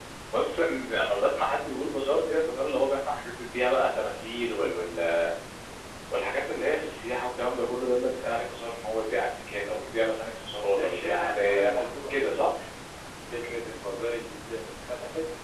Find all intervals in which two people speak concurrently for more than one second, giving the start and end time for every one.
10.7-12.5

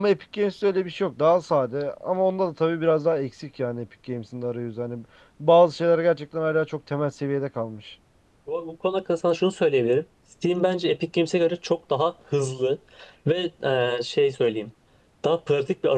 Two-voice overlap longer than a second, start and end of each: none

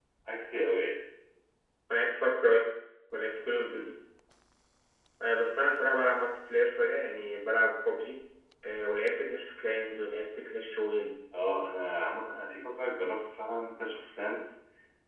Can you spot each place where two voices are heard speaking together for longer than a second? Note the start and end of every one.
none

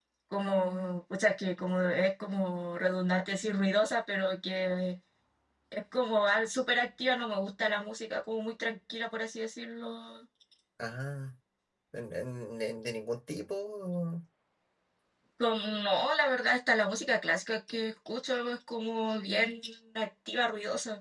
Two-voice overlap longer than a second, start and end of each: none

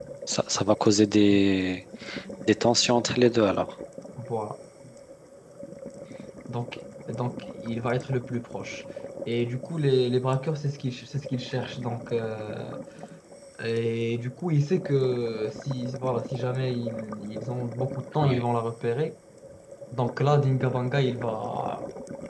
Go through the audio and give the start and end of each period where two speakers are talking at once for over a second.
none

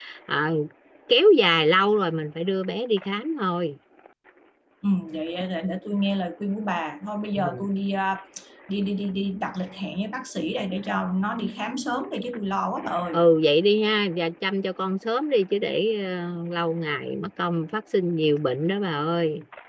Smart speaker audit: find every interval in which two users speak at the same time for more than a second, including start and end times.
none

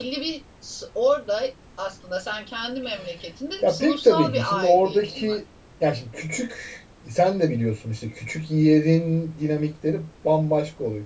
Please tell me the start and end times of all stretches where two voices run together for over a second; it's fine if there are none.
3.6-5.4

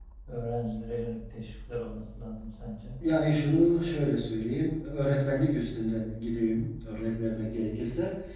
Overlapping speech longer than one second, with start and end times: none

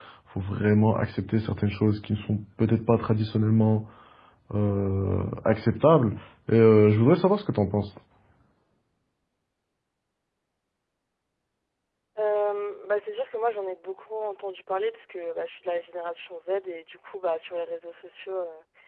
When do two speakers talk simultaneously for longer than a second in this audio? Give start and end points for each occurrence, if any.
none

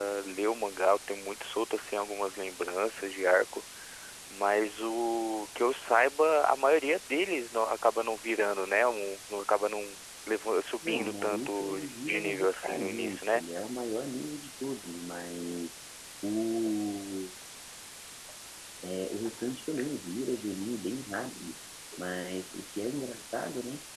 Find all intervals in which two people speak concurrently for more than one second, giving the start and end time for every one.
10.8-13.4

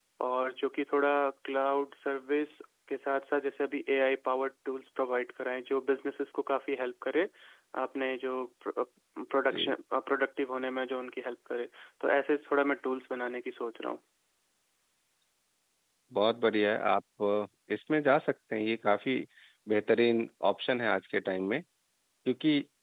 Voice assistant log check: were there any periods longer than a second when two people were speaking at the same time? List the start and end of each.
none

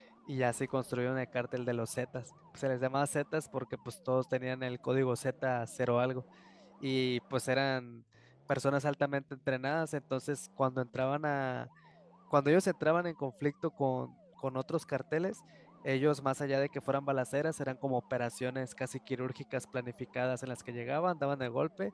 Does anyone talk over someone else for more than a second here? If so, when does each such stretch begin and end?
none

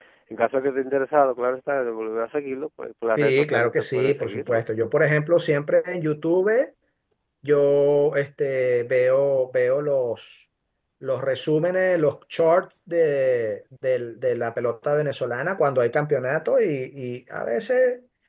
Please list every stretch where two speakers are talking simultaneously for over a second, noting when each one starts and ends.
3.2-4.6

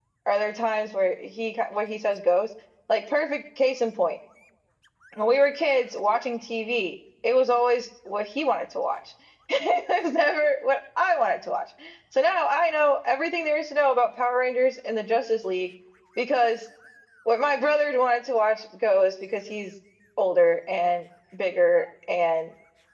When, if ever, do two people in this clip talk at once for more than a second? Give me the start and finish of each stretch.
none

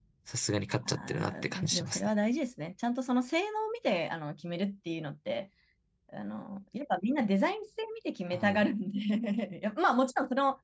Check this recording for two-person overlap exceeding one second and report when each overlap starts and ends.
0.8-2.1

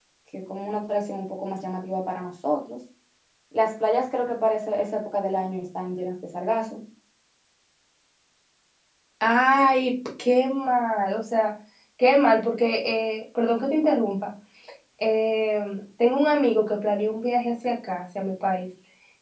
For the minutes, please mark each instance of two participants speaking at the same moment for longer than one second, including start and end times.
none

